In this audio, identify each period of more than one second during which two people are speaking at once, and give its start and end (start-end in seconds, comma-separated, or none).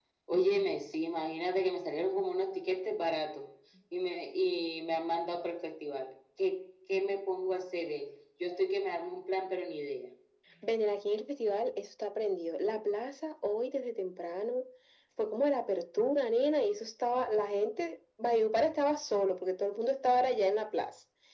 none